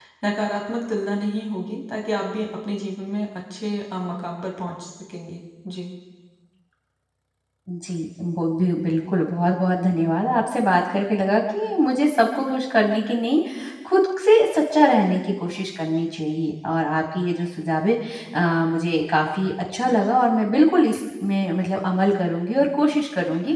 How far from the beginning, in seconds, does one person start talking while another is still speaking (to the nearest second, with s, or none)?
none